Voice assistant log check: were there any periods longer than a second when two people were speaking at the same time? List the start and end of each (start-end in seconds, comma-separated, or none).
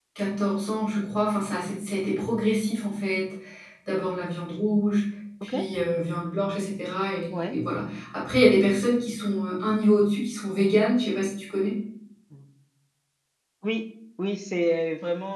none